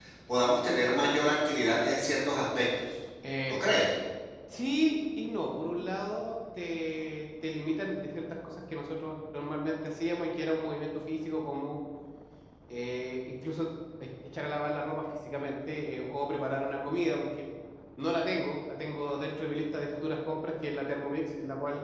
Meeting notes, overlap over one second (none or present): none